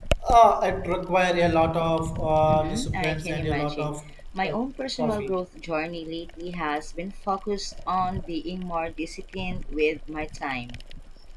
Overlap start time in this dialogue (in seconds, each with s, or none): 2.5 s